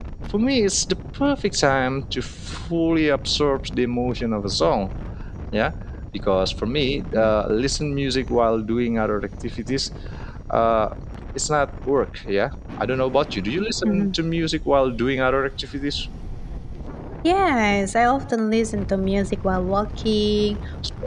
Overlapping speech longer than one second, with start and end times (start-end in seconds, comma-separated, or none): none